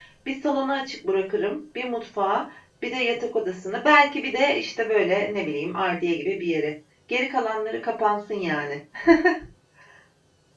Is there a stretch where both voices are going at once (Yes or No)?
No